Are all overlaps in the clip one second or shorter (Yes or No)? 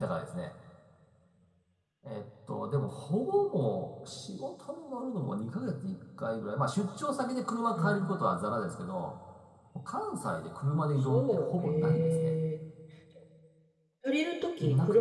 No